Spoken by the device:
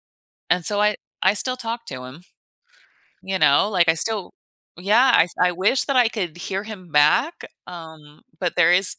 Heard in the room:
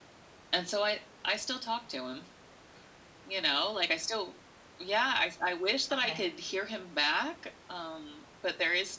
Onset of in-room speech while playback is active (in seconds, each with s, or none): 5.9 s